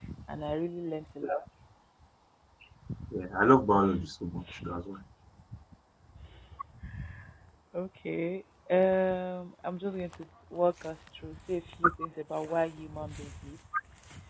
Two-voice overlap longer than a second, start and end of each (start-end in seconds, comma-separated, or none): none